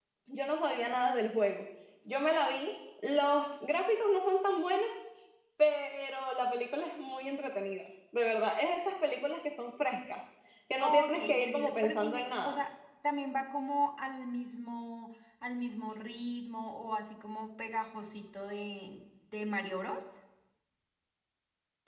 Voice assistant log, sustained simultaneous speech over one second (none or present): present